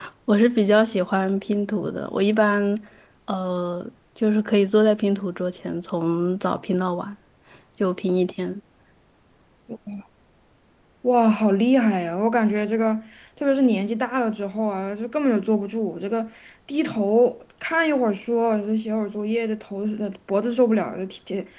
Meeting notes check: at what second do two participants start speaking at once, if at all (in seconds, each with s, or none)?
none